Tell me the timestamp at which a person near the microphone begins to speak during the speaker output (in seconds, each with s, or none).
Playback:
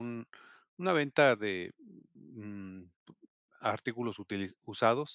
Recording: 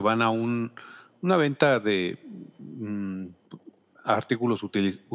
none